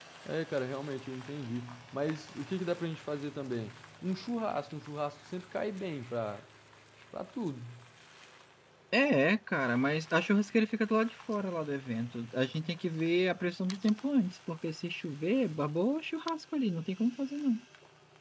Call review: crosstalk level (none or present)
none